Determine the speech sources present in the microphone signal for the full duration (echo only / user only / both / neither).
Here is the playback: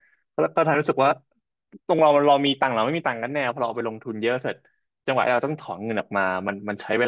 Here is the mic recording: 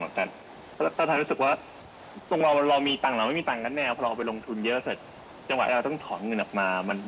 echo only